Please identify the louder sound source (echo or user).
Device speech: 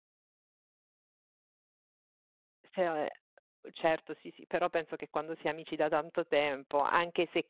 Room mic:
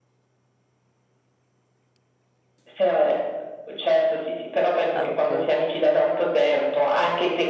echo